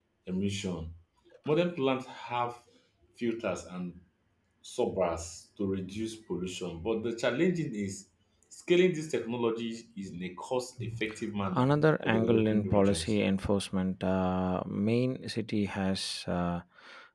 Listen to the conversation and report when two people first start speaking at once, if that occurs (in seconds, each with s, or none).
11.5 s